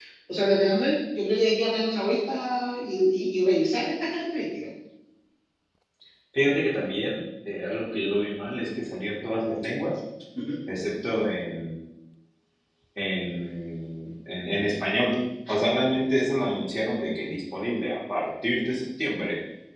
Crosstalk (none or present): none